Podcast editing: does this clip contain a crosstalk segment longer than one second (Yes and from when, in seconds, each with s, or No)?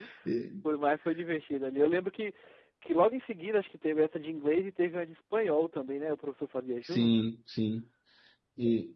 No